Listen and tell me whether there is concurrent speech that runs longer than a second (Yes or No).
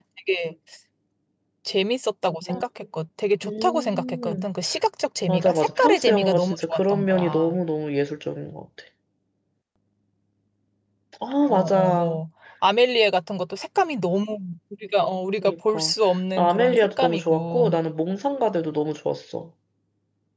Yes